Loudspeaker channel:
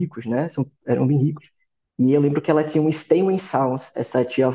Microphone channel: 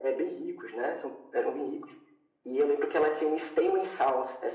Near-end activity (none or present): none